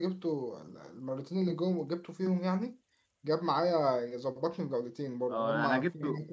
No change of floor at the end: No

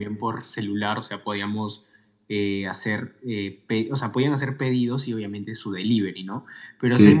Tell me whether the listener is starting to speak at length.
No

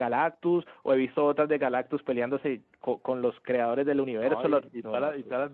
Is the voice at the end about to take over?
Yes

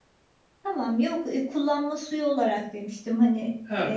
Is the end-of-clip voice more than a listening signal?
Yes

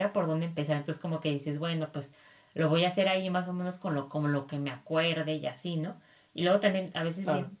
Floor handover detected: No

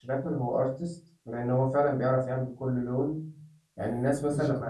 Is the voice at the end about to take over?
No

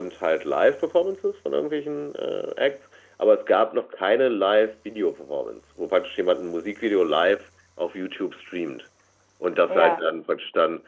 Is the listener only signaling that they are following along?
Yes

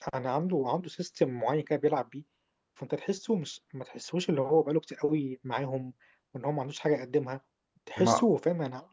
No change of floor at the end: Yes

